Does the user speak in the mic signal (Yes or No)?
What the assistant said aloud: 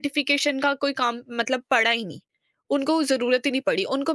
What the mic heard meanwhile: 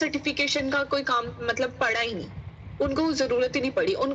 No